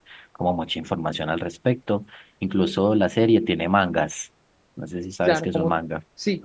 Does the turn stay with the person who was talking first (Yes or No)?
No